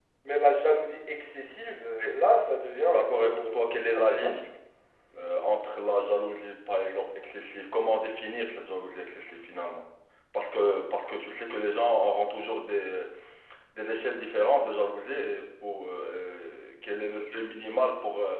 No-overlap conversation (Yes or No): No